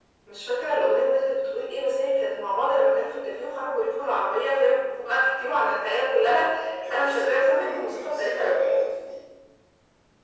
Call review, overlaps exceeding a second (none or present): present